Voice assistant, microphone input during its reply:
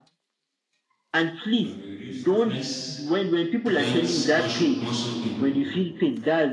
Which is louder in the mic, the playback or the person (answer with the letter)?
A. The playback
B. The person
A